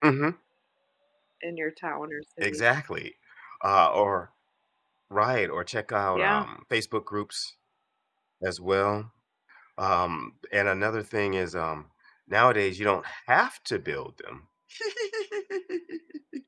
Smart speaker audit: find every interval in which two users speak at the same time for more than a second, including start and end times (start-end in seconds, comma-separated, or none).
none